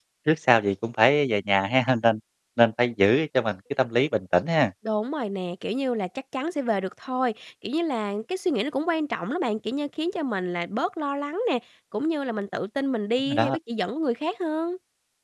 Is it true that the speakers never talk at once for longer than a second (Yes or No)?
Yes